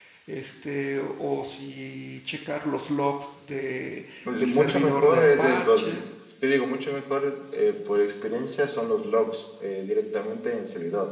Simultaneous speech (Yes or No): Yes